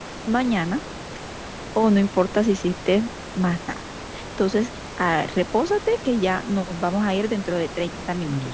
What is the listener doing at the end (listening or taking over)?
taking over